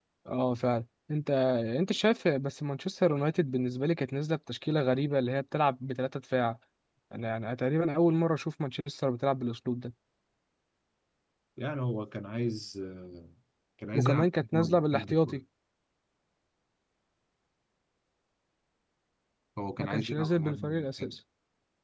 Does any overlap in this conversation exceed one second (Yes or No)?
Yes